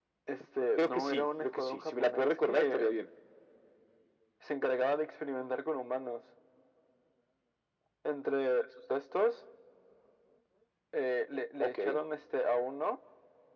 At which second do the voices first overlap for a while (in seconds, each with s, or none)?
0.8 s